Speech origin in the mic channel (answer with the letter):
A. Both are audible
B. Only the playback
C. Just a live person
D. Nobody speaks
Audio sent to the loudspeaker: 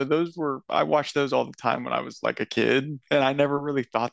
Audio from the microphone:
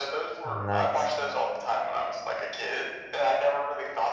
A